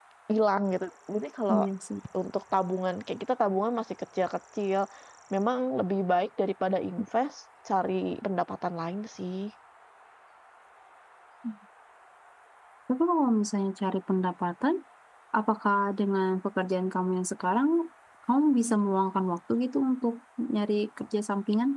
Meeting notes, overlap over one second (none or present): none